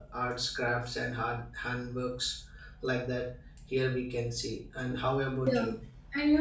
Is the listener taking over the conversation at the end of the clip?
Yes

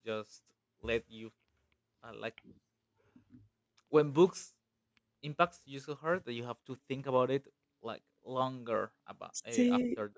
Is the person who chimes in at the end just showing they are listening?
Yes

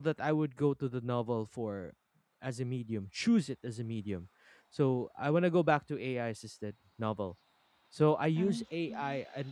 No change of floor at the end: Yes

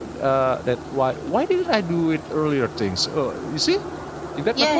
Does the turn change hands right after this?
Yes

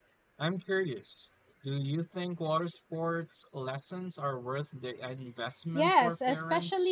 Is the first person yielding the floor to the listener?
Yes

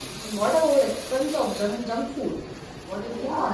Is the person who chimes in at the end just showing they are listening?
No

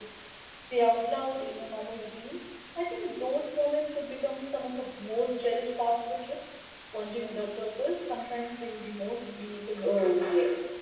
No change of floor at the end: No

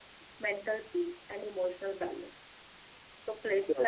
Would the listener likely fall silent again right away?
Yes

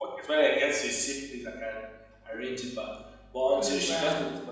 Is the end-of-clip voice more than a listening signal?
No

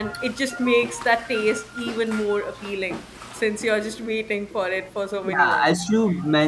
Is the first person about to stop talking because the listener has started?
Yes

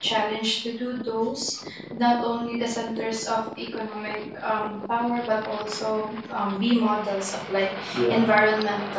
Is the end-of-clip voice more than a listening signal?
No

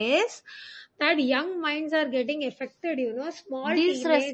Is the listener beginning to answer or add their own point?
Yes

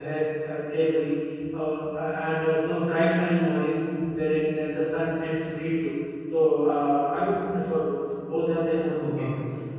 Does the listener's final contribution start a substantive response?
Yes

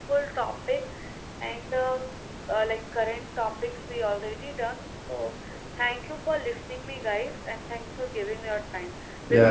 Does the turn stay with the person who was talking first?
No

